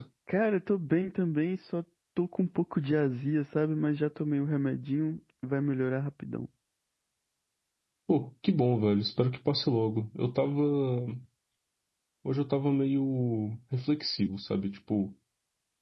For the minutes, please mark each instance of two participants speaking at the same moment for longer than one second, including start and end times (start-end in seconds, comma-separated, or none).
none